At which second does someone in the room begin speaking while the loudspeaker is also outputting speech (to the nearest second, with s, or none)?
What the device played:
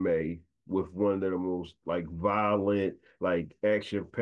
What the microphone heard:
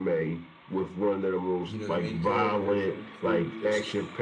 2 s